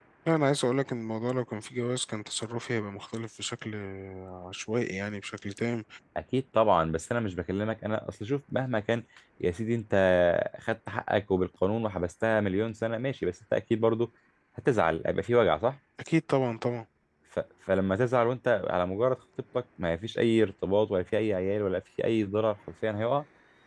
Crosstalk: none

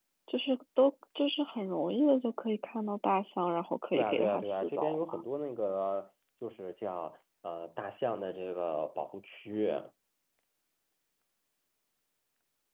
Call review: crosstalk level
present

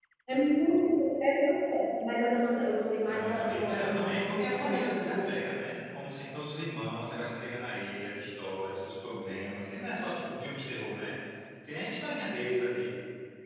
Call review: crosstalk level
present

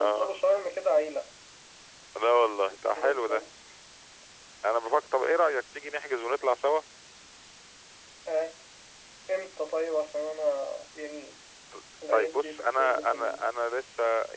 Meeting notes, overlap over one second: present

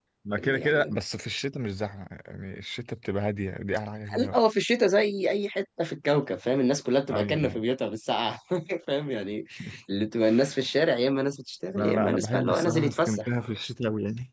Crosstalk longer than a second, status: present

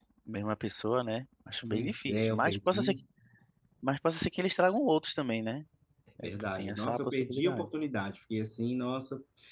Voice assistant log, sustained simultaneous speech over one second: present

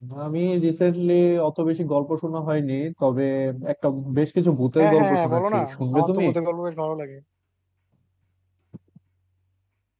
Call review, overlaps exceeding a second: present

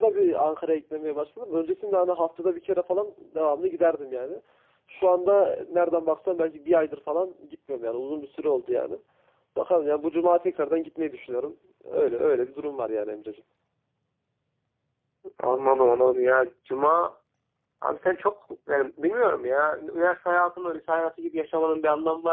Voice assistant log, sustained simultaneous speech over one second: none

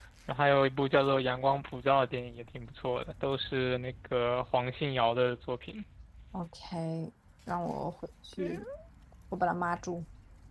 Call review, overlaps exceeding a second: none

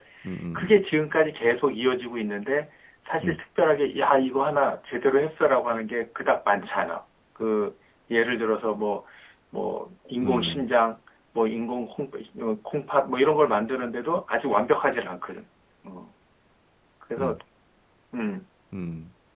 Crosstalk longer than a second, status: none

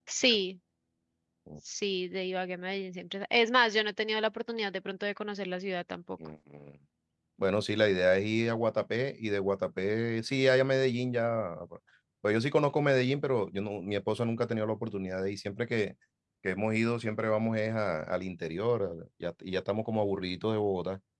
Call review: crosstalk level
none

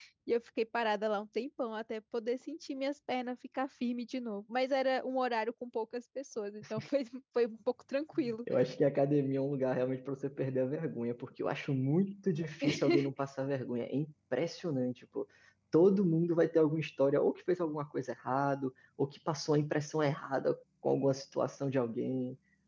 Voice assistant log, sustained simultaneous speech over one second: none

